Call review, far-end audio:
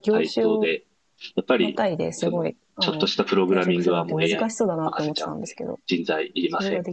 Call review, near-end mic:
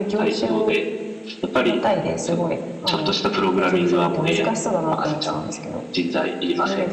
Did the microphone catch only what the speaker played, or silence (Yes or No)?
Yes